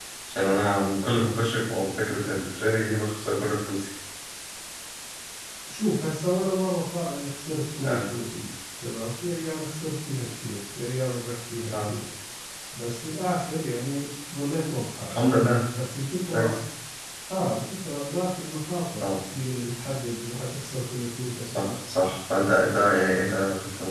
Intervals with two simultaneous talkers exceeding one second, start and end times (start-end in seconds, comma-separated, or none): none